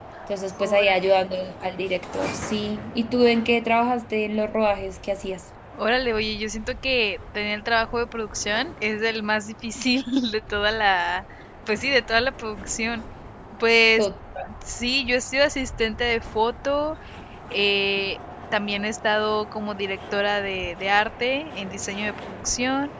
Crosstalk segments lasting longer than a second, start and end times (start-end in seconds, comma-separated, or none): none